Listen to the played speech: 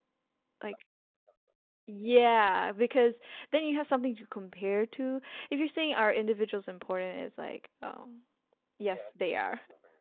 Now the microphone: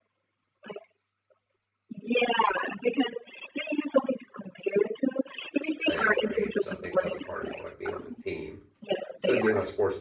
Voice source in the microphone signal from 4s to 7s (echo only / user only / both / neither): both